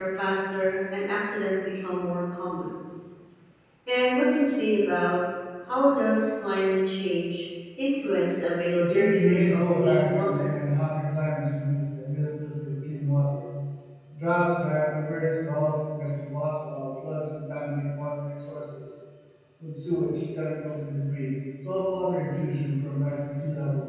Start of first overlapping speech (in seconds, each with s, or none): 8.8 s